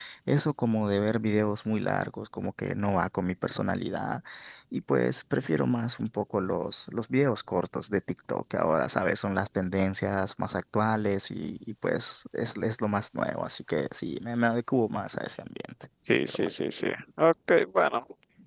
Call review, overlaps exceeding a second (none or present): none